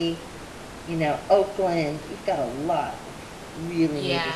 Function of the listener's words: taking over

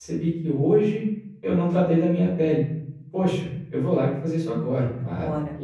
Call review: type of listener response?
listening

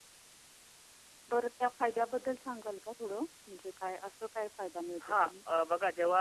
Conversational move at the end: taking over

